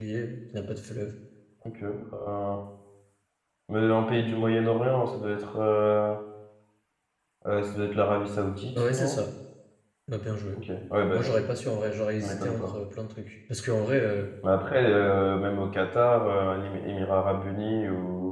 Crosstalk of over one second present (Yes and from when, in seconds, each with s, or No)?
No